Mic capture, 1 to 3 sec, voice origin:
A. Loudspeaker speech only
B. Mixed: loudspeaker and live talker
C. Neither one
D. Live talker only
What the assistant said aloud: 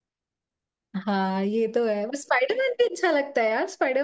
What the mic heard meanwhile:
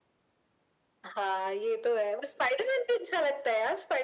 A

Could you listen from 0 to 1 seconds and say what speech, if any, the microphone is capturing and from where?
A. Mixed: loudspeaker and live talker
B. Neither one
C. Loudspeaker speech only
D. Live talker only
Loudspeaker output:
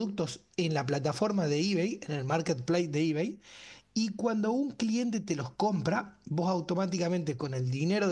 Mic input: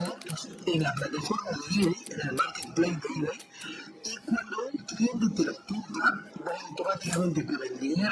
C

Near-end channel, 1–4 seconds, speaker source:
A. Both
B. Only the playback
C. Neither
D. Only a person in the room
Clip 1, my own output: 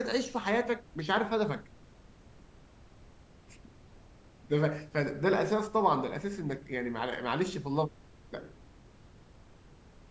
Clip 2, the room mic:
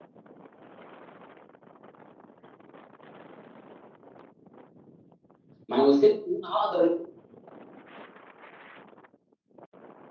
C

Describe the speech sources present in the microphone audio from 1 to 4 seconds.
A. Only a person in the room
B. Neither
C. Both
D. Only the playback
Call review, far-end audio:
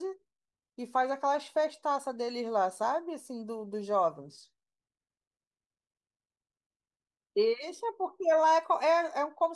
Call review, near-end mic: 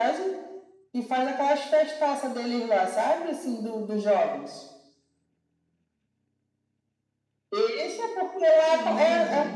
D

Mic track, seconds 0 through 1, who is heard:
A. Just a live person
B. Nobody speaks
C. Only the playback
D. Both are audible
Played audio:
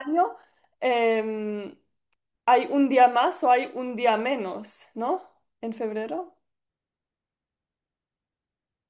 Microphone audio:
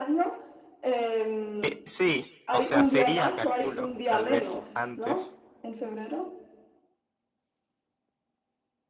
C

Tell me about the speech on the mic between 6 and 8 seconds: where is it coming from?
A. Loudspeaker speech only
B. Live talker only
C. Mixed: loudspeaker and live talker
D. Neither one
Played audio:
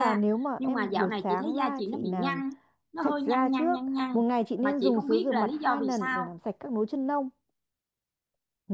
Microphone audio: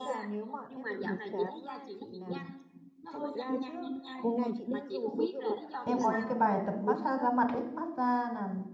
C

